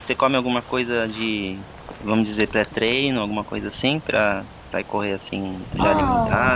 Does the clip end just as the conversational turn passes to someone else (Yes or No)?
Yes